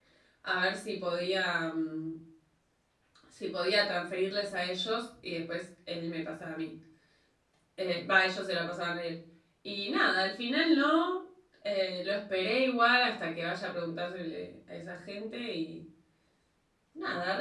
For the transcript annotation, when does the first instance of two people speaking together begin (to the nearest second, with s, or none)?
none